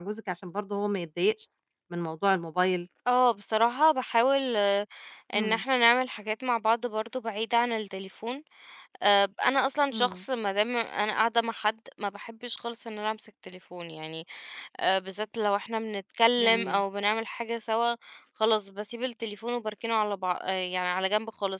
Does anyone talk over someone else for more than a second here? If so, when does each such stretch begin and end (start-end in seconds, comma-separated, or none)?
none